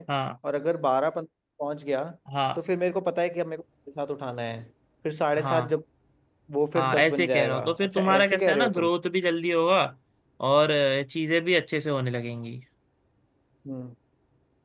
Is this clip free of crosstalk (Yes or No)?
No